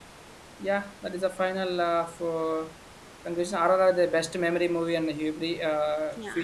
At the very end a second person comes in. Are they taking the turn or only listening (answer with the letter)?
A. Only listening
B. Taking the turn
A